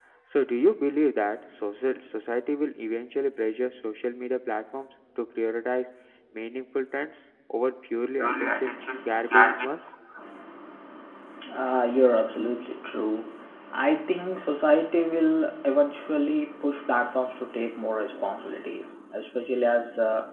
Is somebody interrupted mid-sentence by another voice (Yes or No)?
Yes